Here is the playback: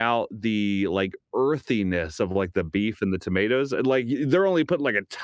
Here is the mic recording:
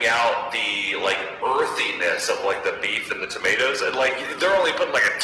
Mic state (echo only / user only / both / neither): echo only